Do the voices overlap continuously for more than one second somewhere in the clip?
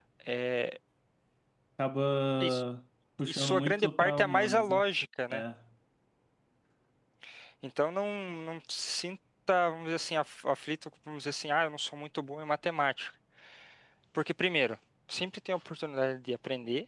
Yes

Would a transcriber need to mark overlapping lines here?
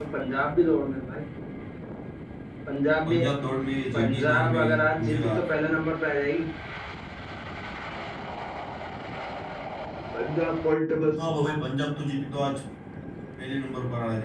Yes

